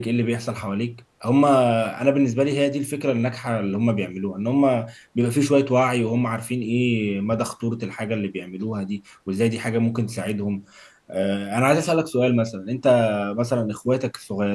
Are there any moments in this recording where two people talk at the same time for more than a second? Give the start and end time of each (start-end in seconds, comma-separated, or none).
none